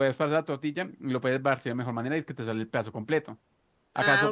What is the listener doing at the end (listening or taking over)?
listening